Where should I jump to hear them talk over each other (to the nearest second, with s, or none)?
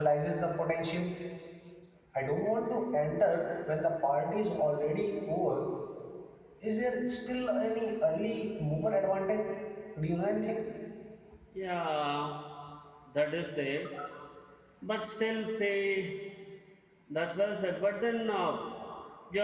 none